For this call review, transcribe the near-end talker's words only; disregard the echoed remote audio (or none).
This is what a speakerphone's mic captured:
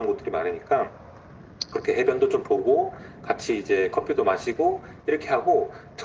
none